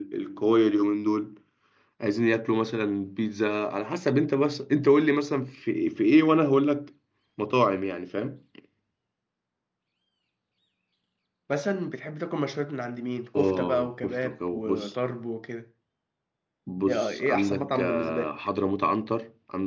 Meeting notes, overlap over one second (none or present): present